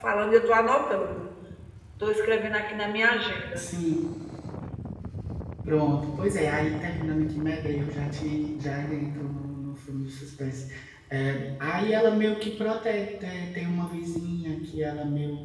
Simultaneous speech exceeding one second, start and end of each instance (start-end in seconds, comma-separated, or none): none